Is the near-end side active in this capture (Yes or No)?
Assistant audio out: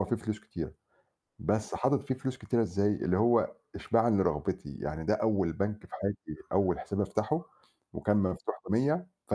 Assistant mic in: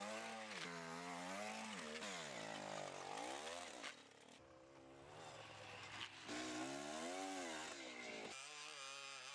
No